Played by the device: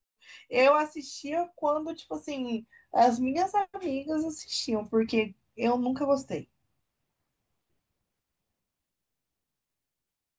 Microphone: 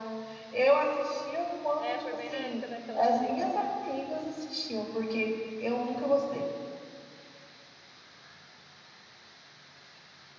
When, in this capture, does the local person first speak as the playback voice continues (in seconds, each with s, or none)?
1.8 s